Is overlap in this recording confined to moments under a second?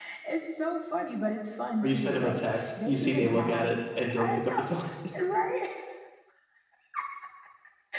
No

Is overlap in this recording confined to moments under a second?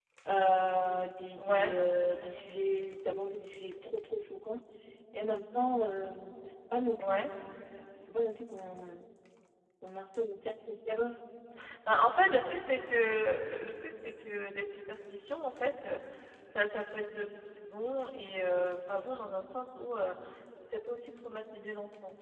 Yes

